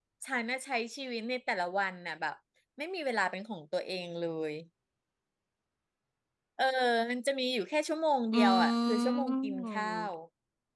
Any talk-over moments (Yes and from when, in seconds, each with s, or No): Yes, from 8.3 s